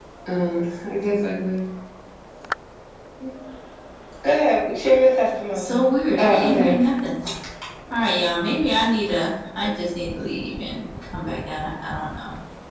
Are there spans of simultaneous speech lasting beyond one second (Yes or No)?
No